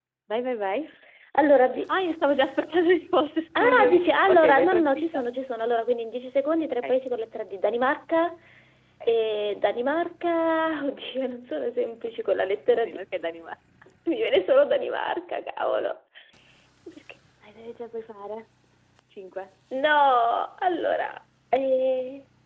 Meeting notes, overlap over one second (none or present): present